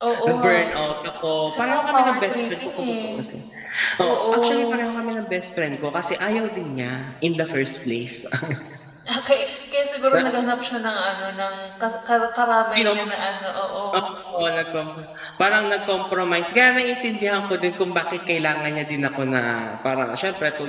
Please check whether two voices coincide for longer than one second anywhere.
Yes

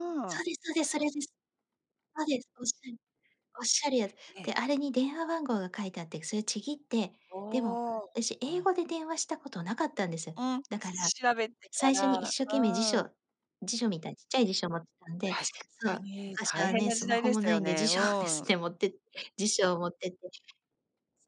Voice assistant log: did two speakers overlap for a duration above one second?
Yes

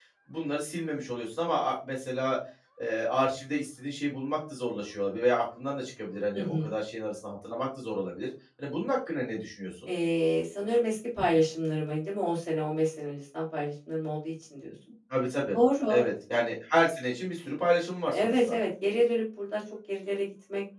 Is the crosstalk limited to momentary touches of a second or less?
Yes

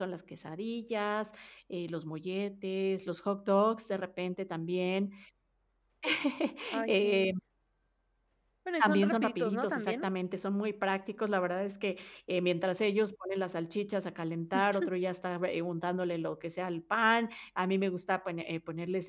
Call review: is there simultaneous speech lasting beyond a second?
Yes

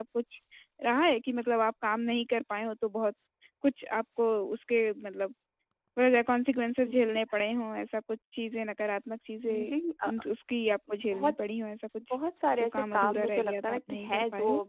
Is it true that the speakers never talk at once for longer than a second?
No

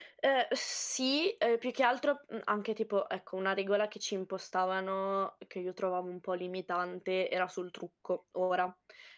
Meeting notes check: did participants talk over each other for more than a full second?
No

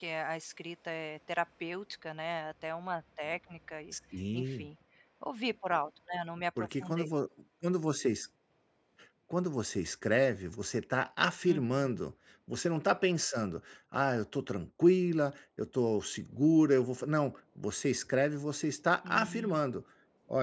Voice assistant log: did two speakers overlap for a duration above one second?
No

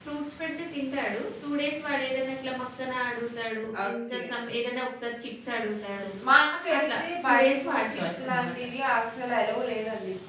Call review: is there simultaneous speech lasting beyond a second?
Yes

